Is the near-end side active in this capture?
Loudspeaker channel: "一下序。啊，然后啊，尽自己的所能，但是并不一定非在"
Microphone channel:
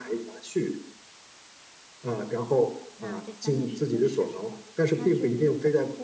Yes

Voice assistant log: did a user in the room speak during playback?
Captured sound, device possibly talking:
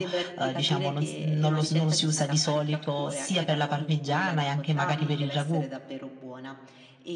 Yes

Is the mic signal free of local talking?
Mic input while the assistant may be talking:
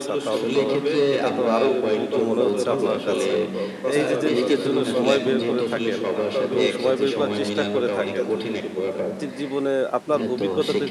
No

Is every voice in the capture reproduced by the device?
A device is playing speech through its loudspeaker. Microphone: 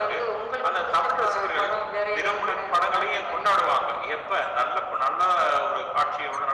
Yes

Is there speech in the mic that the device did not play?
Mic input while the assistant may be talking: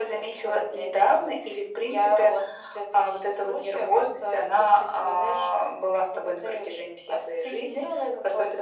No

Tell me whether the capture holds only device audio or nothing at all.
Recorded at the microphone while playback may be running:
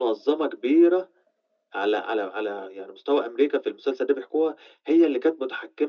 Yes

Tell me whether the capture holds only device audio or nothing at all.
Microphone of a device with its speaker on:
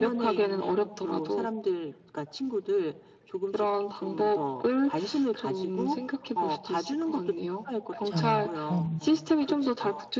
No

